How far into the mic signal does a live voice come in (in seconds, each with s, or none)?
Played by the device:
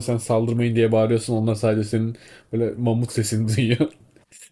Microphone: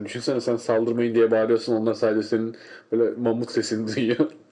none